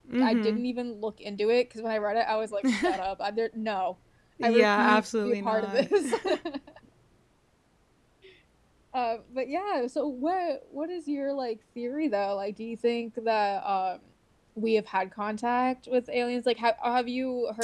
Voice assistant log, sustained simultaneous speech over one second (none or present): present